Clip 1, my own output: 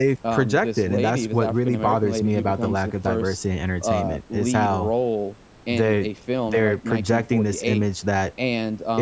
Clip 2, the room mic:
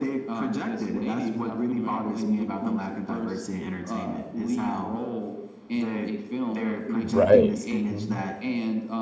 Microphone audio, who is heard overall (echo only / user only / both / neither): both